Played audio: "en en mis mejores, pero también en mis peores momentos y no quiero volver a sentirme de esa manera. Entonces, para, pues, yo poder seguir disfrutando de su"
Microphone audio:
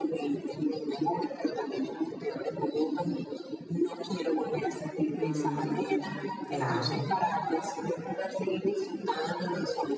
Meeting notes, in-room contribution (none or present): present